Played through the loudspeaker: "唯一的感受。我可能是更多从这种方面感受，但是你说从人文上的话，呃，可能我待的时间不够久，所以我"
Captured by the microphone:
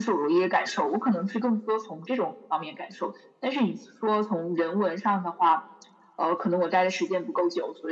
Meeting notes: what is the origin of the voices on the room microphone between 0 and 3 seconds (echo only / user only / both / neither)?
echo only